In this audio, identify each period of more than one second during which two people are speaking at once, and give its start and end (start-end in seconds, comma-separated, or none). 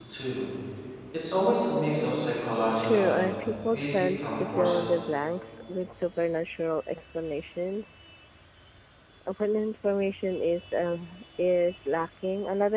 3.7-5.0